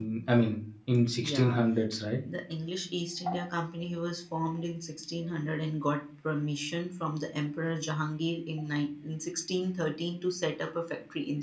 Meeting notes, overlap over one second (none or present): none